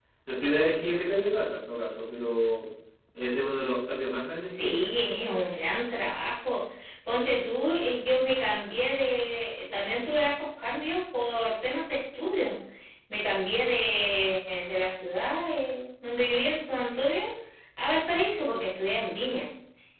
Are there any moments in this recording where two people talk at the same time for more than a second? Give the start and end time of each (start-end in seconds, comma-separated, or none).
none